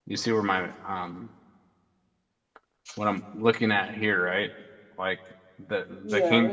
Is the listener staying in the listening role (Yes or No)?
No